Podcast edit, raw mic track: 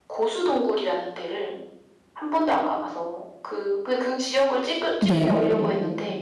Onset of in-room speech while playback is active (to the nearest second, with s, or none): 5 s